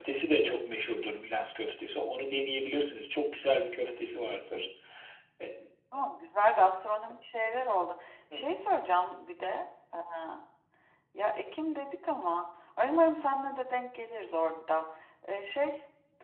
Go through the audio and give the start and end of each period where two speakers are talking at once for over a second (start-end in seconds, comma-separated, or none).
none